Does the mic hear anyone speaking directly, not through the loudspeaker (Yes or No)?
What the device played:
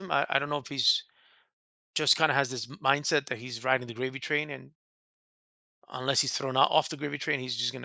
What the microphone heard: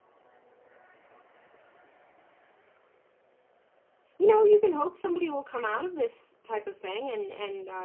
Yes